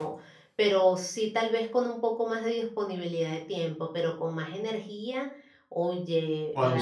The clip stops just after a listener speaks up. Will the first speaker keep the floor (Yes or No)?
Yes